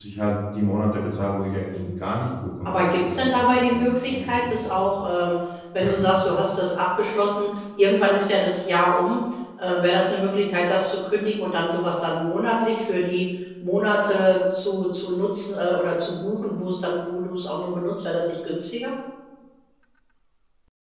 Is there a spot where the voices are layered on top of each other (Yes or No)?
Yes